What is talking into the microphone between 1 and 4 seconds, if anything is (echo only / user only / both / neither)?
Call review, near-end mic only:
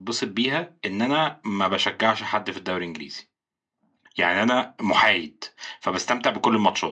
user only